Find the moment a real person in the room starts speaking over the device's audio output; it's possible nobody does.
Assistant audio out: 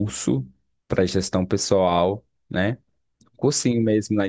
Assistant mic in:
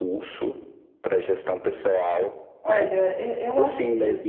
2.6 s

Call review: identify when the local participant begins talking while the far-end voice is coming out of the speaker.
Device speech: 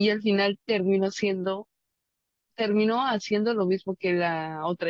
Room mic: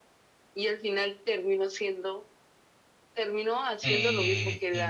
3.8 s

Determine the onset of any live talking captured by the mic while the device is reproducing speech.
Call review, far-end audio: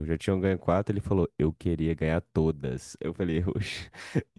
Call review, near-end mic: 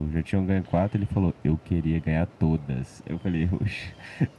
none

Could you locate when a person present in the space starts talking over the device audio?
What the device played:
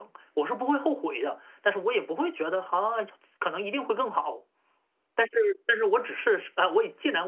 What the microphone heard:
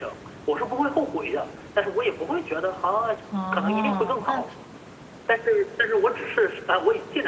3.3 s

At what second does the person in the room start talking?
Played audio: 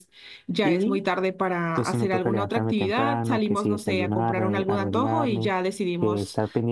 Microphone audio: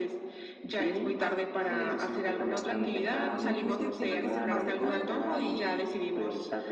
1.2 s

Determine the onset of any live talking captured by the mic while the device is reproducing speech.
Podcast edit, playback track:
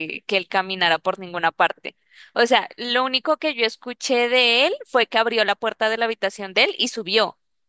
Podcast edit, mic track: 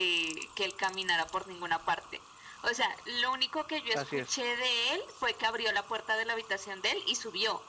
3.9 s

